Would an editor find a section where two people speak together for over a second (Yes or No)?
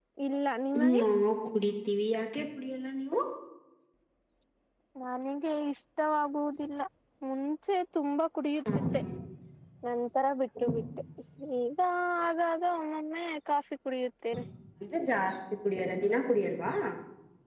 No